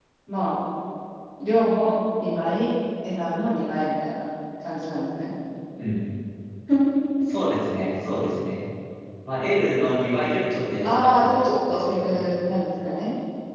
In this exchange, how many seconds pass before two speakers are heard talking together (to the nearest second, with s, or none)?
11 s